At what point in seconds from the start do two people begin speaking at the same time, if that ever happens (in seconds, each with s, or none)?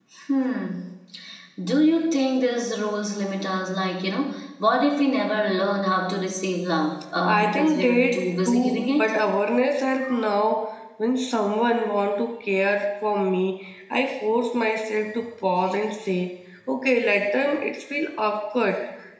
7.2 s